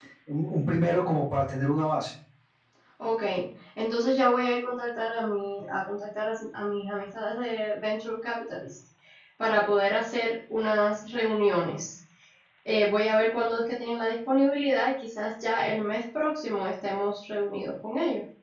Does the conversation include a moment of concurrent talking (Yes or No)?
No